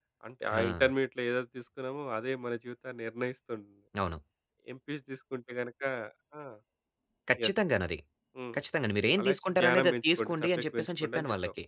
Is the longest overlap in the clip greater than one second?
Yes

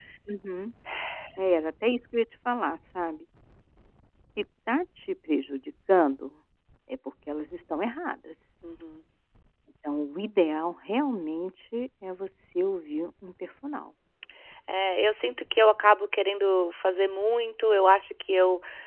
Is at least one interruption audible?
No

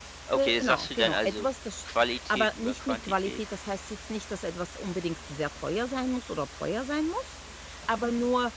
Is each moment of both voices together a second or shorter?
No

